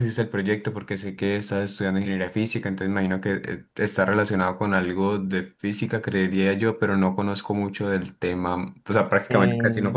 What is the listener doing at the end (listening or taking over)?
listening